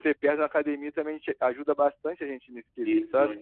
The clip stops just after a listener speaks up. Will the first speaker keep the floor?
No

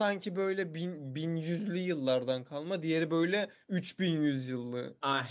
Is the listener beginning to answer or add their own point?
Yes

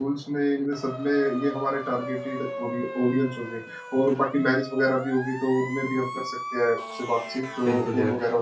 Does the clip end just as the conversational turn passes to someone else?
Yes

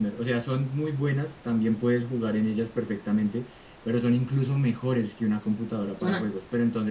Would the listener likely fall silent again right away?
Yes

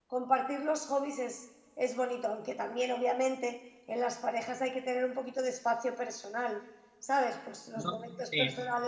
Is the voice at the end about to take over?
No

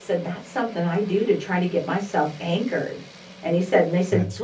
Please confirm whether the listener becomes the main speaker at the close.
No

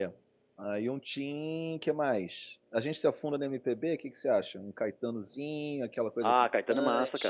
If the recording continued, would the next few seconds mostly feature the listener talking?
Yes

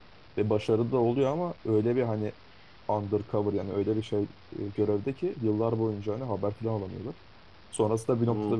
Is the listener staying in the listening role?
Yes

